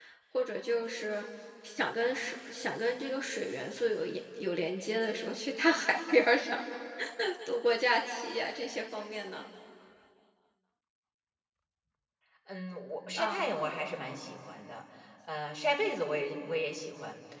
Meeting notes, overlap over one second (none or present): none